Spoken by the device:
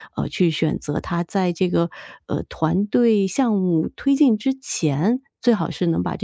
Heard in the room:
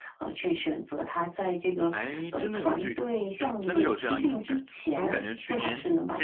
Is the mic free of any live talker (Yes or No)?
No